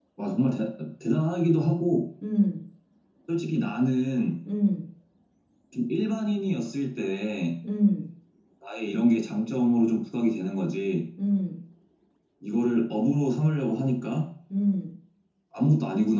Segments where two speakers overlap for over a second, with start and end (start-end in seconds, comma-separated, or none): none